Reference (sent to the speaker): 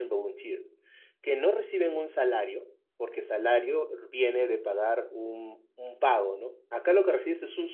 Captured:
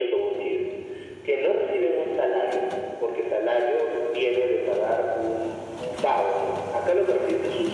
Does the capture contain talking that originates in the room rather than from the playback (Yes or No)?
No